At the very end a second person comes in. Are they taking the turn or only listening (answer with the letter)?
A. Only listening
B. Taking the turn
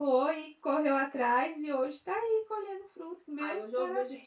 B